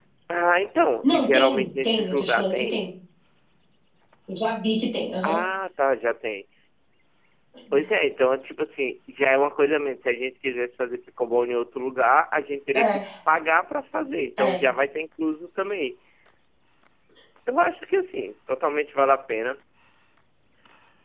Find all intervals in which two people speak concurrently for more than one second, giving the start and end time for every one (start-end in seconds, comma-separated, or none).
1.0-2.8